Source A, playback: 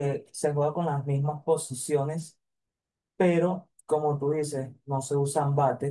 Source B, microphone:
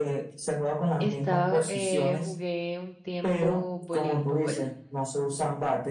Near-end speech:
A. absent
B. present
B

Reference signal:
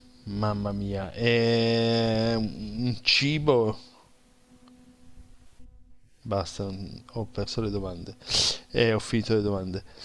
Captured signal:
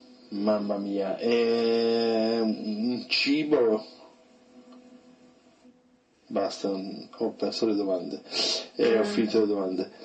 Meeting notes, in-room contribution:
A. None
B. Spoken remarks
B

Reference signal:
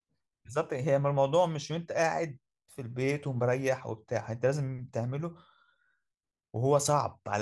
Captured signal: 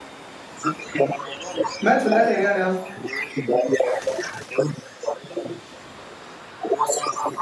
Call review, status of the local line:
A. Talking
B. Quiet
A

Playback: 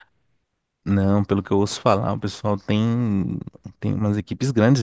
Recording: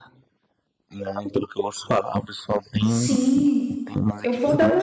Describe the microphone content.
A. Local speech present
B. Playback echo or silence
A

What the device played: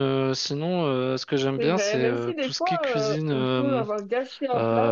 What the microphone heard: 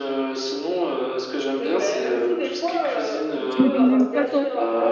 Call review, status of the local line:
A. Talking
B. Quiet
A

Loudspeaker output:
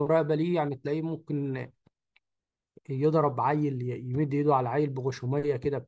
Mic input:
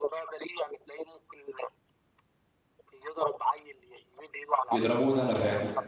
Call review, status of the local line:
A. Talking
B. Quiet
A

